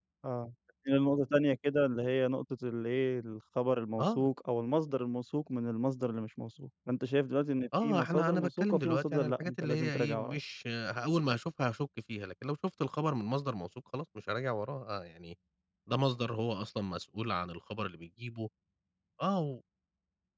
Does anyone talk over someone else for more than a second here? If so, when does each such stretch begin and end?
7.8-10.4

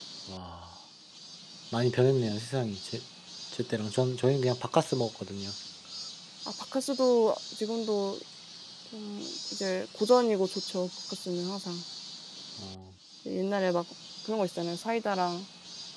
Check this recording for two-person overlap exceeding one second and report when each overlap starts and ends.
none

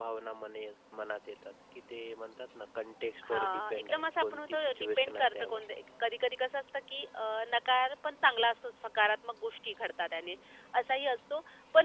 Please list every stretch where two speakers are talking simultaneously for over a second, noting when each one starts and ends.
3.3-5.6

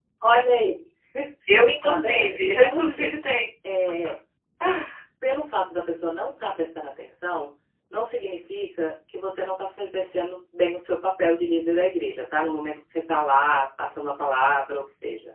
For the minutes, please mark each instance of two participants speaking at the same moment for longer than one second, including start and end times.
1.8-3.2

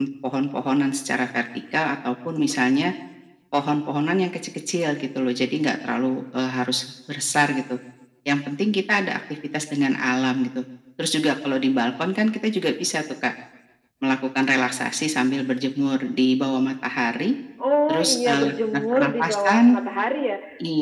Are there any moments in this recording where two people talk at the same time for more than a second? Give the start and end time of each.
17.9-19.6

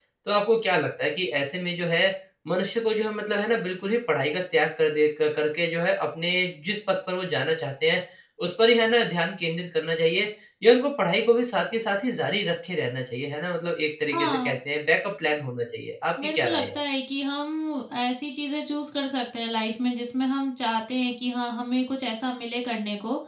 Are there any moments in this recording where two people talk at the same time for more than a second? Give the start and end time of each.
none

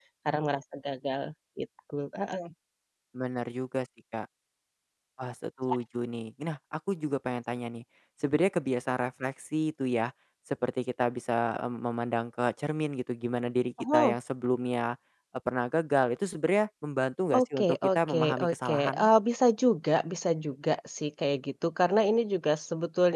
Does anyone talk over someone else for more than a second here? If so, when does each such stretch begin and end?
17.3-19.1

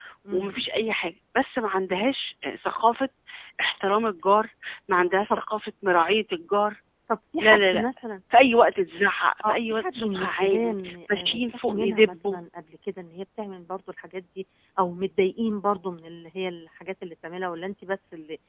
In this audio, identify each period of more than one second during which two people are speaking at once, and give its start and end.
9.4-12.4

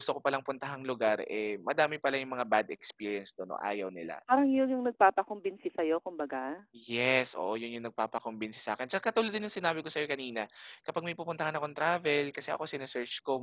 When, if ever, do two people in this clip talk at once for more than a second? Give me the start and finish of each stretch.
none

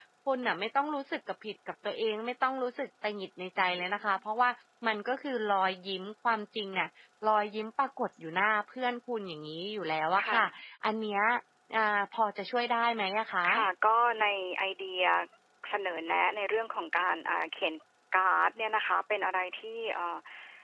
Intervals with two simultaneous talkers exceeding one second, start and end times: none

